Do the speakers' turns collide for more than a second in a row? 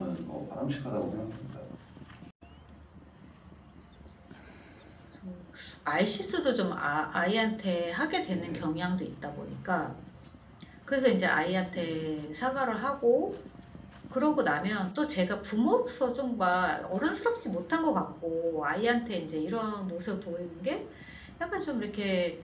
No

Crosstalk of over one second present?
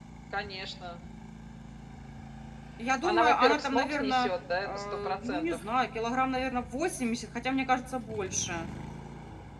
Yes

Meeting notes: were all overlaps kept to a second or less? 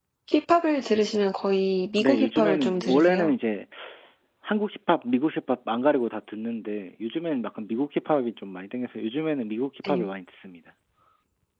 No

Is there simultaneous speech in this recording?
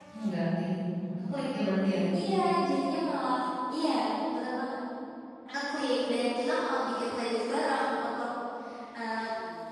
No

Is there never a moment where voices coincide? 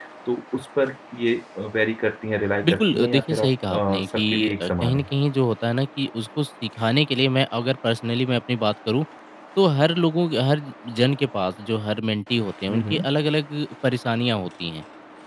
No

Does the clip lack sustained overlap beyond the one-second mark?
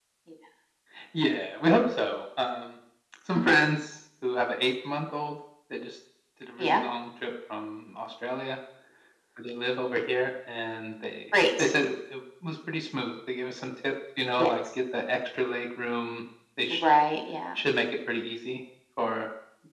Yes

